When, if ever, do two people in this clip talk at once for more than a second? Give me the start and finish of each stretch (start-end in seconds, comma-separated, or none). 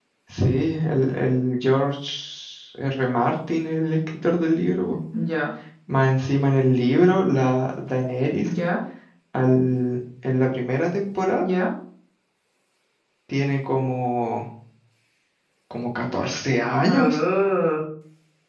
none